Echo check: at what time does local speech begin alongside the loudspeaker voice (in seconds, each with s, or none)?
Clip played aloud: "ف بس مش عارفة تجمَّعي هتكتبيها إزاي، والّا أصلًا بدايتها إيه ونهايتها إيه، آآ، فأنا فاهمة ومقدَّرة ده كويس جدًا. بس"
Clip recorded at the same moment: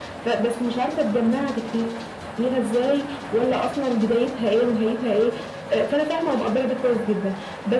none